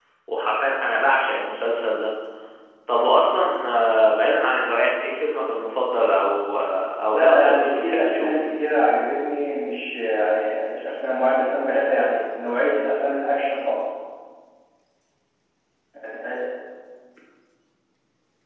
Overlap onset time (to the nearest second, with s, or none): 7 s